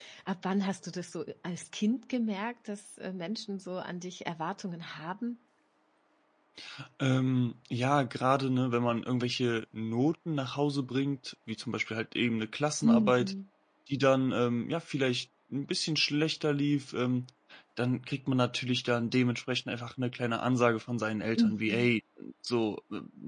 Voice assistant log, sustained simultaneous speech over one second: none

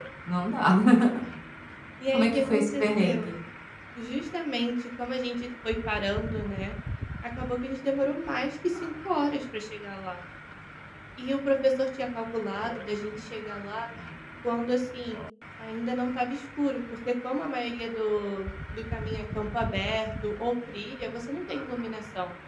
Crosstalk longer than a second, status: present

